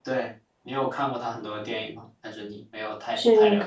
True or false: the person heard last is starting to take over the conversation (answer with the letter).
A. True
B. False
A